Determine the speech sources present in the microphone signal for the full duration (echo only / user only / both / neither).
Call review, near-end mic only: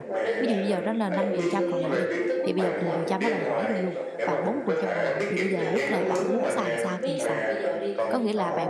both